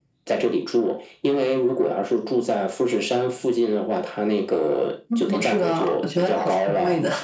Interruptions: present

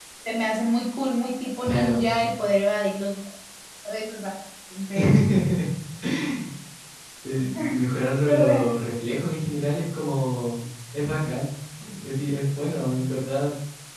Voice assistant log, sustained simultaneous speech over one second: none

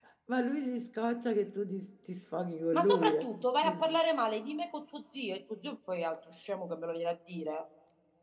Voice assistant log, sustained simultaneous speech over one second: none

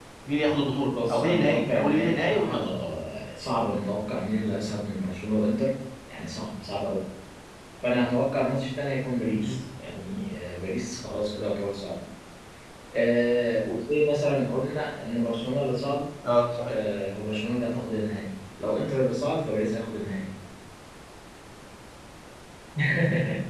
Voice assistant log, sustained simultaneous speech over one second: present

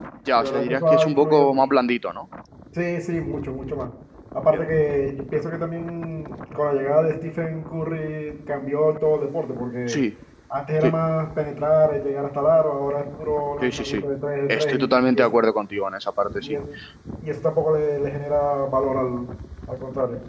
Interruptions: present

